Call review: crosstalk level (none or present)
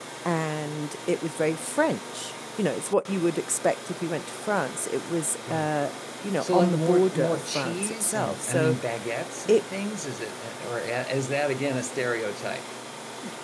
present